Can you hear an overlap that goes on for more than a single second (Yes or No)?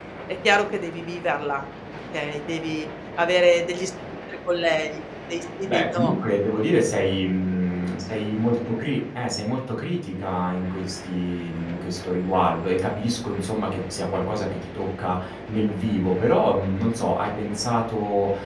No